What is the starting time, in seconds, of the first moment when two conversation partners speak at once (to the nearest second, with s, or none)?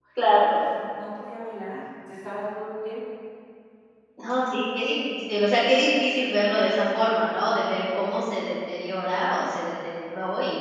none